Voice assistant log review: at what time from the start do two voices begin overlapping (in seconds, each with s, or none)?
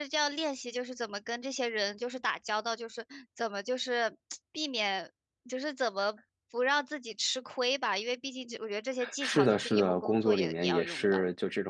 9.0 s